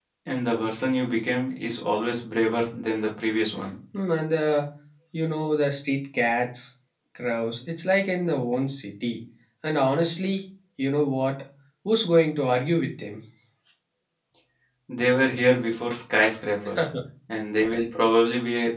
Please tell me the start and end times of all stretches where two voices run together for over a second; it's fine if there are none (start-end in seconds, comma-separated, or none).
none